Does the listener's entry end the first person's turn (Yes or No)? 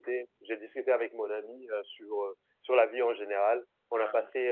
No